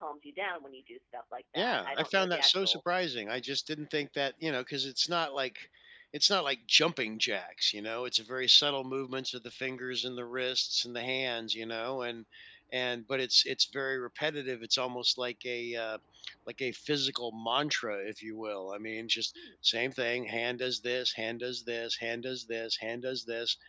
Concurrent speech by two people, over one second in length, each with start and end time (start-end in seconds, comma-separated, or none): 1.6-2.8